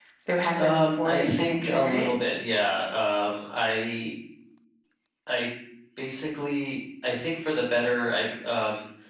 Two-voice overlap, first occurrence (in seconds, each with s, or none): 0.6 s